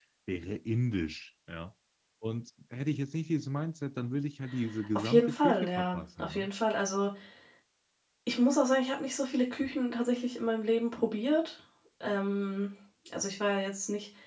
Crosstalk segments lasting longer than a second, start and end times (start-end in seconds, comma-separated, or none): 5.0-6.5